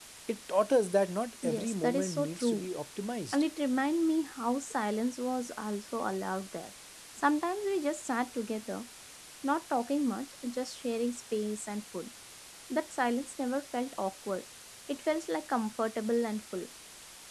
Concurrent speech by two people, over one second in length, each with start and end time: 1.4-2.6

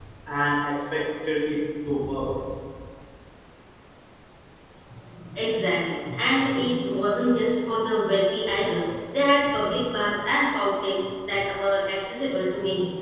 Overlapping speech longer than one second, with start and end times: none

